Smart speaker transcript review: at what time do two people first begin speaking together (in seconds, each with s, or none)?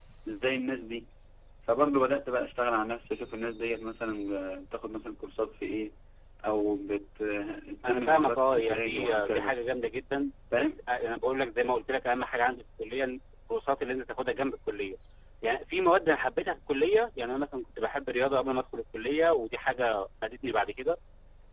7.8 s